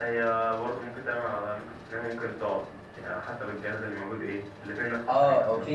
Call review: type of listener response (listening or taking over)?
taking over